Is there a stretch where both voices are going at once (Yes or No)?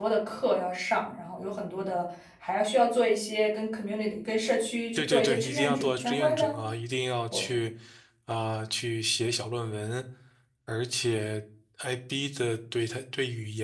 Yes